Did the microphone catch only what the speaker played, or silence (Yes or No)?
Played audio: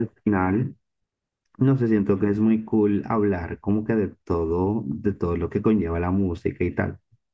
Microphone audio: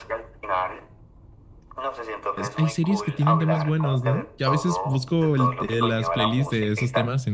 No